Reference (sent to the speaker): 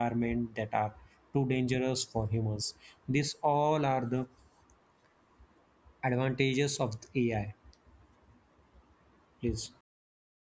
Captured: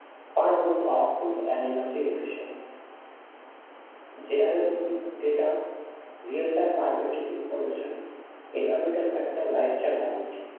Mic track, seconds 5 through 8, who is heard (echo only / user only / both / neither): user only